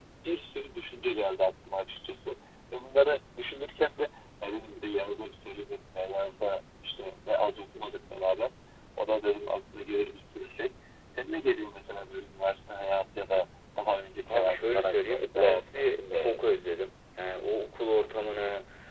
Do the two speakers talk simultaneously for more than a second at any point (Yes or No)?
Yes